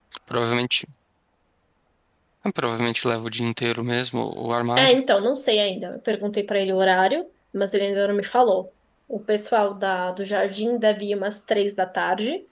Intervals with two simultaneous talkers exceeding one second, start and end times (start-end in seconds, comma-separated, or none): none